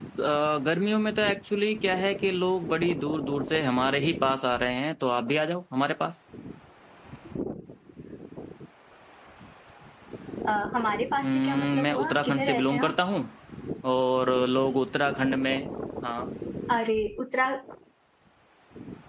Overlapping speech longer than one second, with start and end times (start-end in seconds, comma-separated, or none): 11.2-12.9